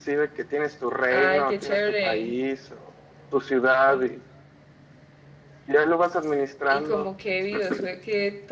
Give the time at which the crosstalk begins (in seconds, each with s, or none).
1.1 s